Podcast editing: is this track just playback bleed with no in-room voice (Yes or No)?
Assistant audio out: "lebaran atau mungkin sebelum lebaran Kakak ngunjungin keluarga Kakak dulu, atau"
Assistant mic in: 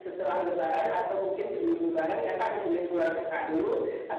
Yes